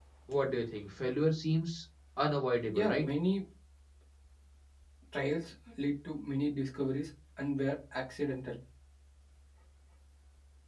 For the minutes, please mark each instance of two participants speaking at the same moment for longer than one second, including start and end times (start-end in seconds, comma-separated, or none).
none